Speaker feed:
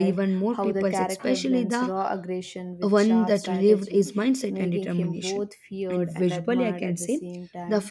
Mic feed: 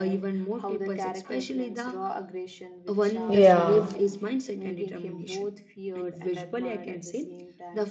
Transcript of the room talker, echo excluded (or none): Yeah.